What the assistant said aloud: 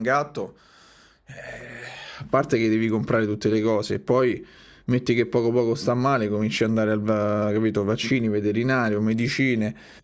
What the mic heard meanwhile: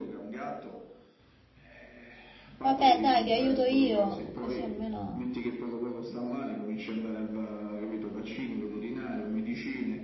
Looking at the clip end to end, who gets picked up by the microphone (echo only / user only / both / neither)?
both